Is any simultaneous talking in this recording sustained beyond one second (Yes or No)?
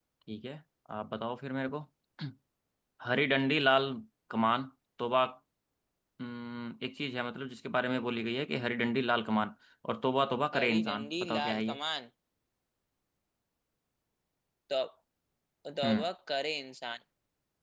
Yes